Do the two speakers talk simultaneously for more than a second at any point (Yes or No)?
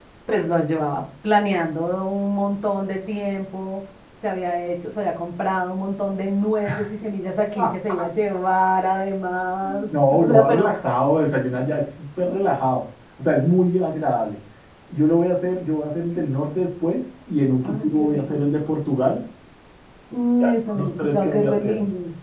Yes